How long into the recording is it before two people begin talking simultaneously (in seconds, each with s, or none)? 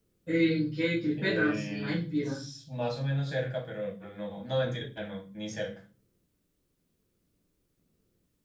1.1 s